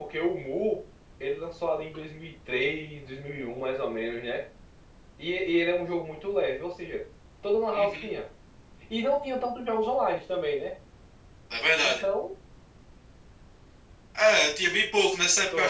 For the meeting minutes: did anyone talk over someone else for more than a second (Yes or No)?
No